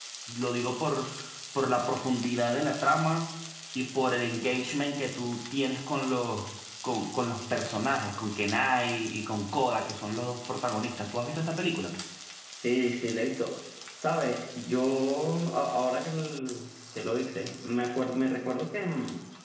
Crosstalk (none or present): none